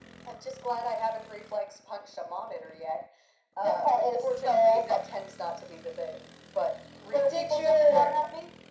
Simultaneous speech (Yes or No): Yes